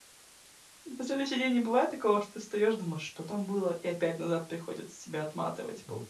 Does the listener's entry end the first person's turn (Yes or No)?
Yes